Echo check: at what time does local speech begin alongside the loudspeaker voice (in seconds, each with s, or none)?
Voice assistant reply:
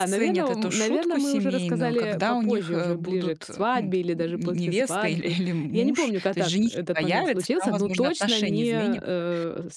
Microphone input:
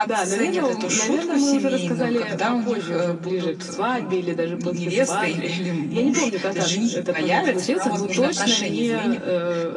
none